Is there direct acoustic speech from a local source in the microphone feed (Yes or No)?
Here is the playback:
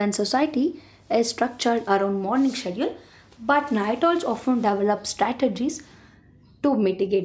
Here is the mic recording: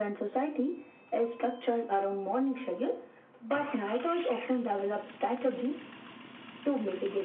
No